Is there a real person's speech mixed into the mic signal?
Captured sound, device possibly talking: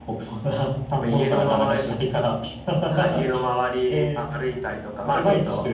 No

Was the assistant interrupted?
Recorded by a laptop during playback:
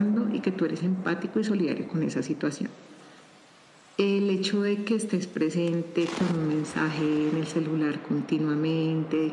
No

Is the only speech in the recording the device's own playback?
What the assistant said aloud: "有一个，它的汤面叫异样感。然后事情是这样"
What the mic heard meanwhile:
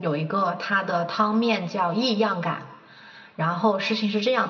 Yes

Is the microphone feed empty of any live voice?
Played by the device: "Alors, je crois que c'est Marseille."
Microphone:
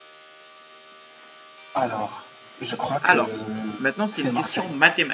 No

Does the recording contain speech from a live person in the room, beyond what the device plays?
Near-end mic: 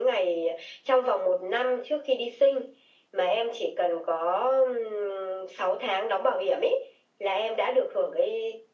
No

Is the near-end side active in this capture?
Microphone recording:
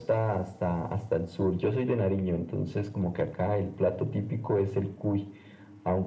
No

